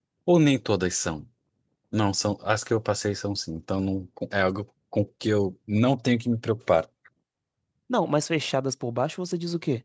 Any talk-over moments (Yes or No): No